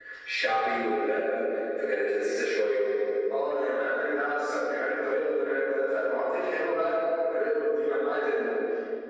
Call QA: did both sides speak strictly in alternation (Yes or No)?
Yes